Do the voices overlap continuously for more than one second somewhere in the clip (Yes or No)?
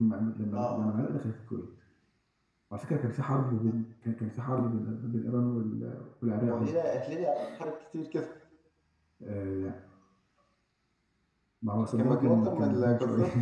Yes